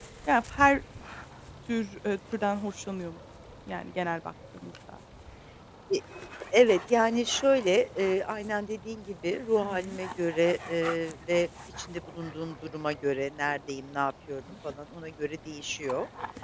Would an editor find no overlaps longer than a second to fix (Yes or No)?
Yes